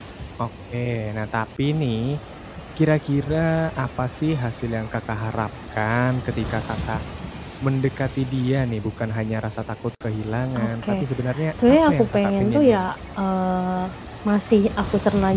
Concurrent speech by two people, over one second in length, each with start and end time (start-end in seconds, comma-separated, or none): 11.7-12.9